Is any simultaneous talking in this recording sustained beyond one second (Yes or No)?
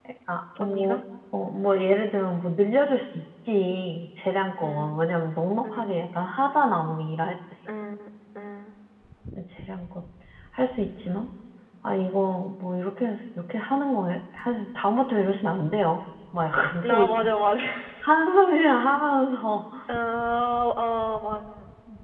No